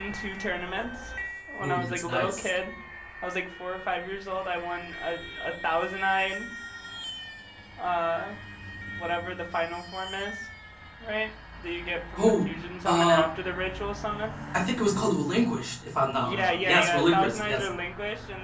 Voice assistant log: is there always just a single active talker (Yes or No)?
No